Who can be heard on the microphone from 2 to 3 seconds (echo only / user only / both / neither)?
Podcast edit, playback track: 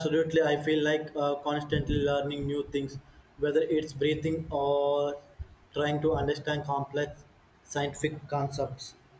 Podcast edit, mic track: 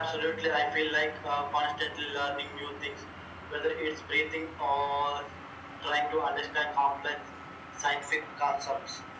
echo only